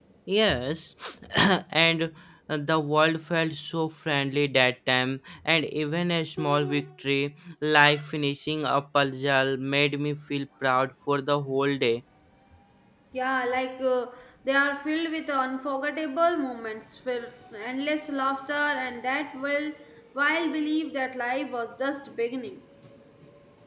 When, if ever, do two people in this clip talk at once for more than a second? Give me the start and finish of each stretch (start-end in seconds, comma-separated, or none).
none